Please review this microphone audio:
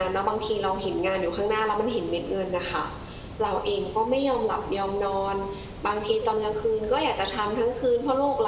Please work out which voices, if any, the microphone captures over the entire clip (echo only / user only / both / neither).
echo only